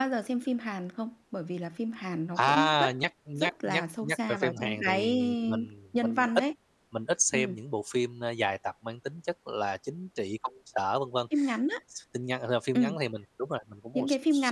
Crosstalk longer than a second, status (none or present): present